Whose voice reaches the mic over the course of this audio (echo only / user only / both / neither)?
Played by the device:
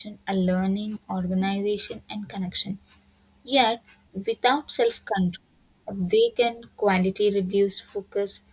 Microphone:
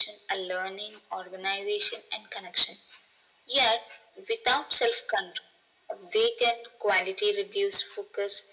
echo only